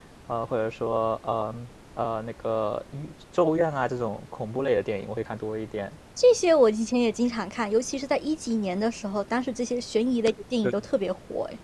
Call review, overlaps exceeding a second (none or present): none